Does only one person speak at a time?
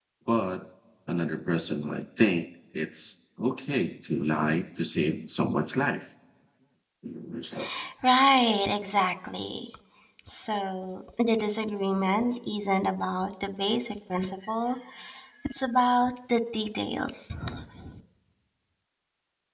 Yes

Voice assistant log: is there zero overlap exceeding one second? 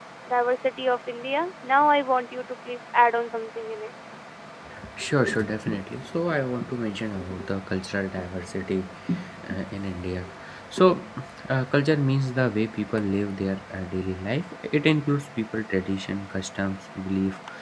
Yes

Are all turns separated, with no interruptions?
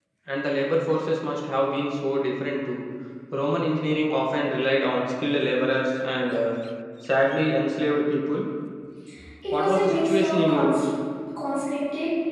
No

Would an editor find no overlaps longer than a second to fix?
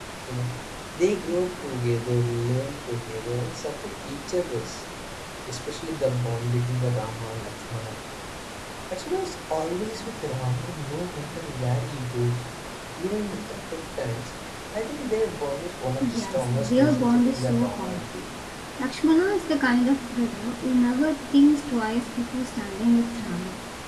No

